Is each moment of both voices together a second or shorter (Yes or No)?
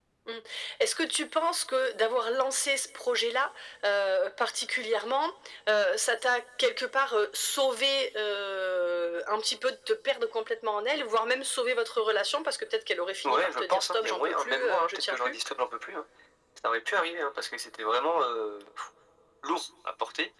No